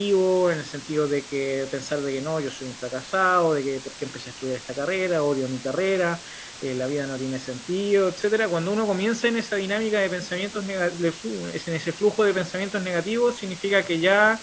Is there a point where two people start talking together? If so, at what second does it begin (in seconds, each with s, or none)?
none